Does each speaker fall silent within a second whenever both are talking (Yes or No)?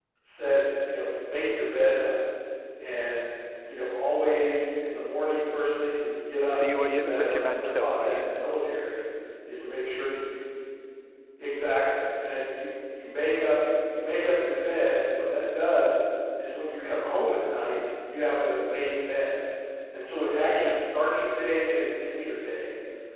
No